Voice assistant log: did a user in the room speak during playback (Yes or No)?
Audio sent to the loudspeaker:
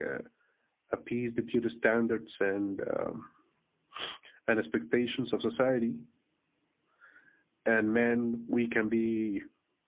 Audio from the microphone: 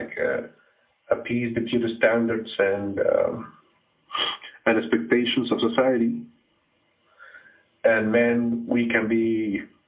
No